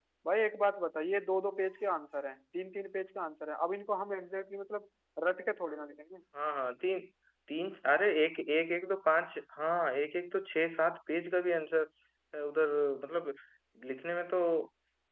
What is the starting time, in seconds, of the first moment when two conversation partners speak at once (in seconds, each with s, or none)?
none